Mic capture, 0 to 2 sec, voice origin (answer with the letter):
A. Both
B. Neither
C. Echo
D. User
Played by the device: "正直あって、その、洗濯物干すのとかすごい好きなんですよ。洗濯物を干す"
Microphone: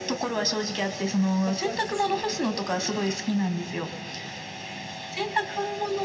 A